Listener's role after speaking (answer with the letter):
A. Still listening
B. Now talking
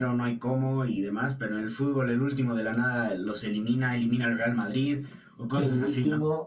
B